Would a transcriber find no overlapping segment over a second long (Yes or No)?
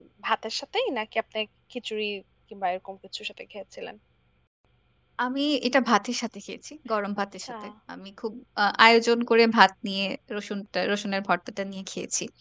Yes